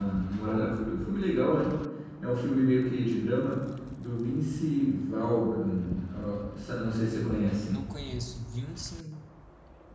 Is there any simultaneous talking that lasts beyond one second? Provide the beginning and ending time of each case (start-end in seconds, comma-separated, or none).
none